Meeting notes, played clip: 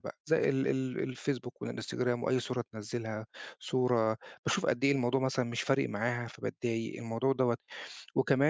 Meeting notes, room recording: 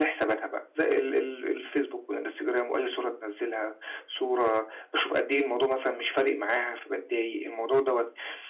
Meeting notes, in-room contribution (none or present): none